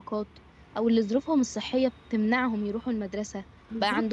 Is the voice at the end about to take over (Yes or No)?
No